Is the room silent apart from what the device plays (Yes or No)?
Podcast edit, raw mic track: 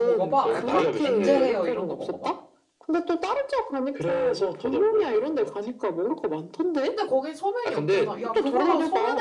No